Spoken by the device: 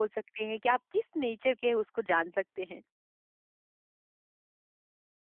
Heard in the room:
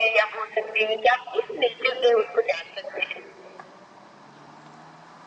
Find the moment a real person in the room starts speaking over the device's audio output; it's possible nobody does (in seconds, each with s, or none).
none